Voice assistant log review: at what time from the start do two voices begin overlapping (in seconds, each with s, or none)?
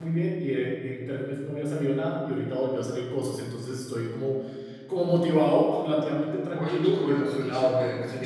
6.5 s